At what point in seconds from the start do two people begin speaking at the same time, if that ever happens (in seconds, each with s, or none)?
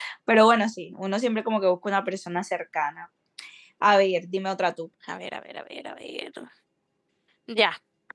none